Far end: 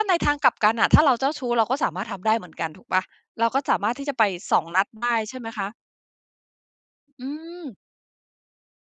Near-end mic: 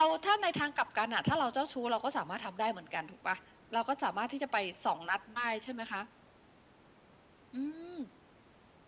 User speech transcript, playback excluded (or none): none